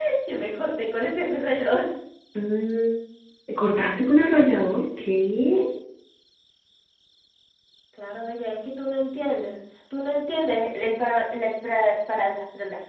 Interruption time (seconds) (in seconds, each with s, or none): none